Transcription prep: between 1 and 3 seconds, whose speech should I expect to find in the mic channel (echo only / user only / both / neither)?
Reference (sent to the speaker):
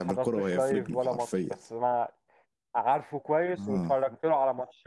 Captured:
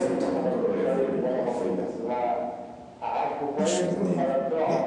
echo only